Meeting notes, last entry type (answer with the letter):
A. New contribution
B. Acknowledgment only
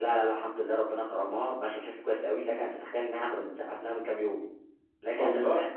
B